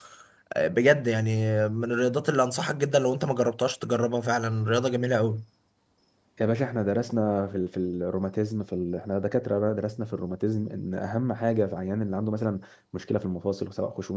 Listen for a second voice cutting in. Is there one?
No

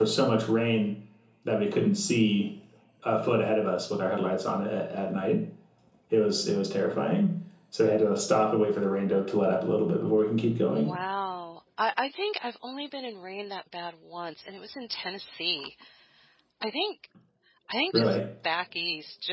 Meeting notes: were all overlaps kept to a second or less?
Yes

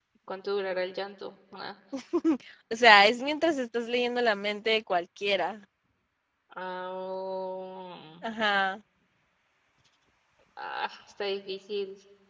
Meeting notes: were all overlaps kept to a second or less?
Yes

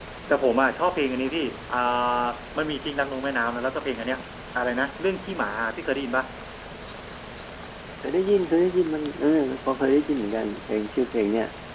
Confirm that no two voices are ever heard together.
Yes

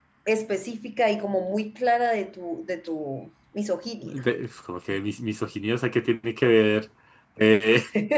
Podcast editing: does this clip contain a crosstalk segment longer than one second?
No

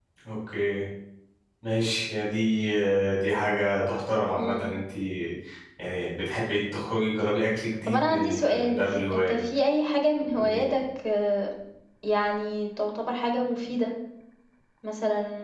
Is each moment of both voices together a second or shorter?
No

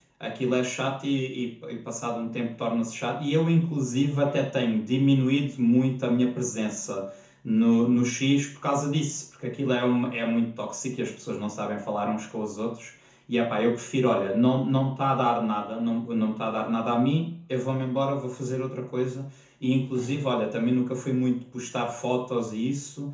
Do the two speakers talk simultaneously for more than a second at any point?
No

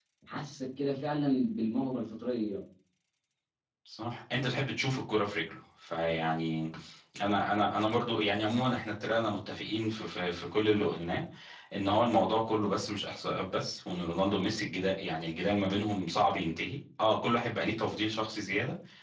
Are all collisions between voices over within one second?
Yes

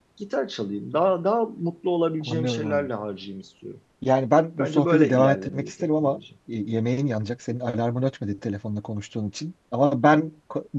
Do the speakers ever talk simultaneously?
Yes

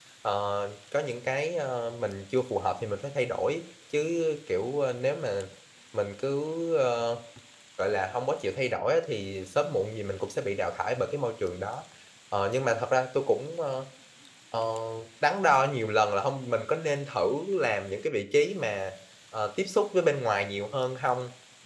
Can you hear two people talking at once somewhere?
No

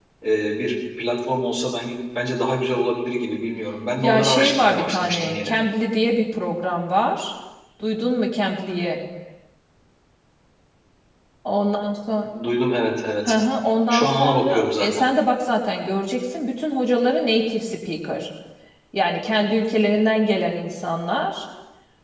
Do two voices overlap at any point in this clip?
Yes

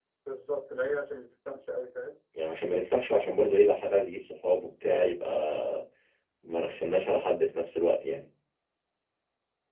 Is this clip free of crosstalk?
Yes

